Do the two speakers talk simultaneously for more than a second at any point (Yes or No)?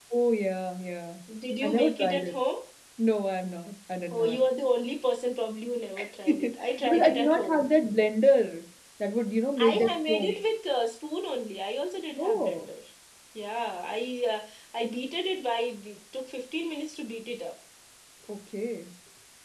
Yes